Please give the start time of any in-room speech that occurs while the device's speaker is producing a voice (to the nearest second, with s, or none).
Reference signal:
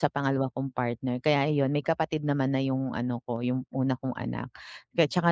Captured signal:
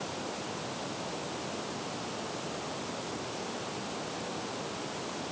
none